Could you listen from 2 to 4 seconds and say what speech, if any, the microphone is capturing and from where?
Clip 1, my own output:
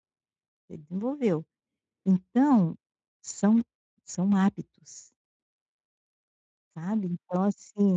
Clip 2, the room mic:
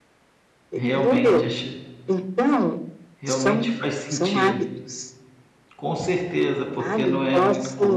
both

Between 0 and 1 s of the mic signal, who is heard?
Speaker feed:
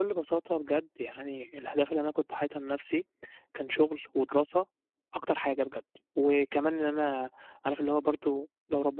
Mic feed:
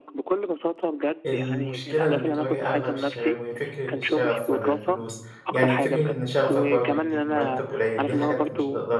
echo only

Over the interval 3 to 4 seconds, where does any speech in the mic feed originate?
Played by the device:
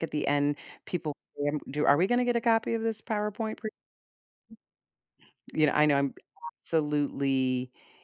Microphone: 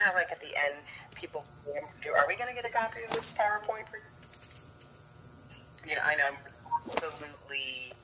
echo only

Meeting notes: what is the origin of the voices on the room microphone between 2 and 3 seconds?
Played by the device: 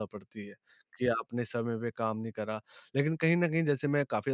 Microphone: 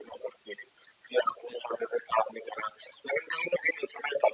echo only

